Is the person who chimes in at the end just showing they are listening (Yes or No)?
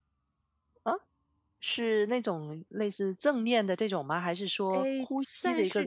No